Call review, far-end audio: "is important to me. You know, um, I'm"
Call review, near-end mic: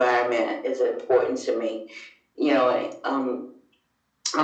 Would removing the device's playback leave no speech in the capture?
Yes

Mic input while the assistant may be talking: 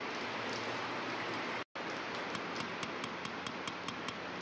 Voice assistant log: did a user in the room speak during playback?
No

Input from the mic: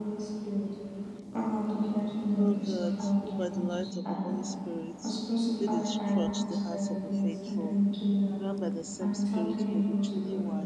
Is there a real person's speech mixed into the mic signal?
Yes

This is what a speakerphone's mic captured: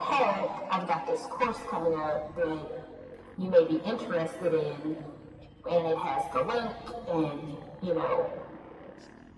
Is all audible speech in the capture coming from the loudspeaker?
Yes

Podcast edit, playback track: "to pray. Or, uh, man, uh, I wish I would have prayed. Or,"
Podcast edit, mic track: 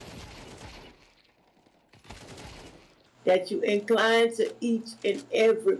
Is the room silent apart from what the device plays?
No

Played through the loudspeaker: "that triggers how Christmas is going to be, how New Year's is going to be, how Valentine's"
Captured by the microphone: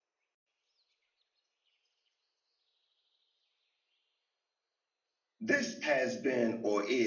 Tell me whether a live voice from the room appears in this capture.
Yes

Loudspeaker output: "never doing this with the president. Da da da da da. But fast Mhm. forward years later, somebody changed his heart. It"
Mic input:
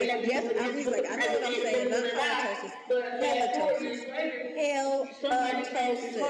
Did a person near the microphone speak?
Yes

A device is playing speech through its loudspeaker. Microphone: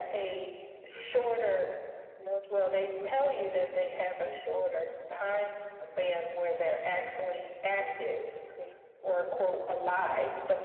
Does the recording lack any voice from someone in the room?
No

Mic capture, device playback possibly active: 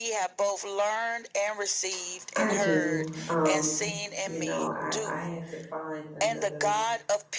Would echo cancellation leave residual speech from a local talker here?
Yes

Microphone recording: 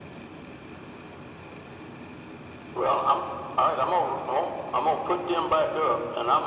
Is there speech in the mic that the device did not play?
No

